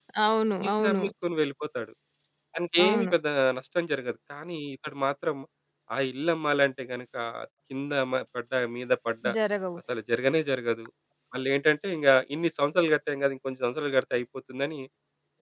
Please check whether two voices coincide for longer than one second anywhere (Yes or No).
No